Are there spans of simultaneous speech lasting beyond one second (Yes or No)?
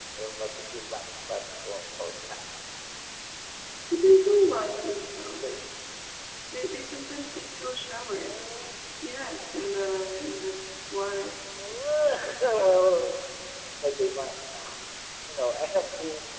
No